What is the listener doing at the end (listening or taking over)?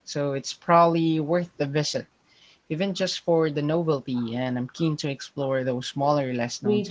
taking over